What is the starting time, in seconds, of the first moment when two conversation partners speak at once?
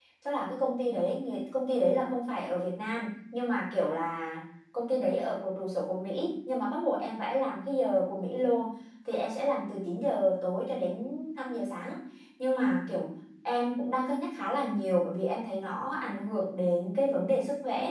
none

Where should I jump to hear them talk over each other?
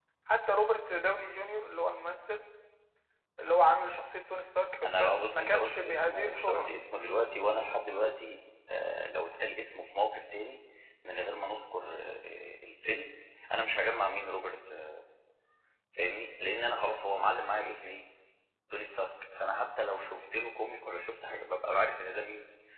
5 s

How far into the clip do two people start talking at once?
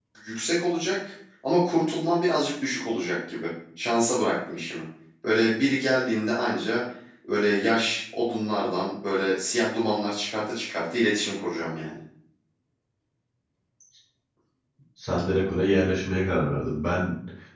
none

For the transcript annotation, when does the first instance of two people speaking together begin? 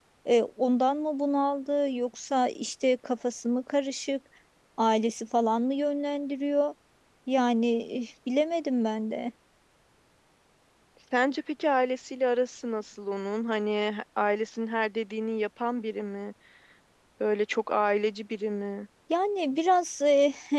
none

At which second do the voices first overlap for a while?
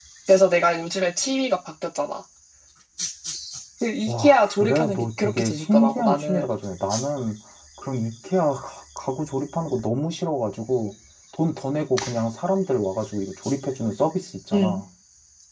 4 s

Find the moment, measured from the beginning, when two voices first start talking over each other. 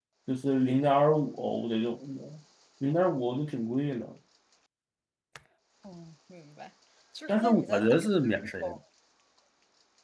7 s

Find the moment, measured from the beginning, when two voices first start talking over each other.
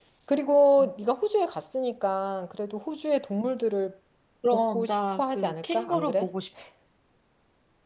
5 s

